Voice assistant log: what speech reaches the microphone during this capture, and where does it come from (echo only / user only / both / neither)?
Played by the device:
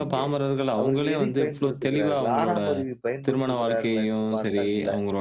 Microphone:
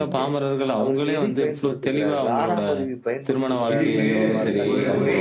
both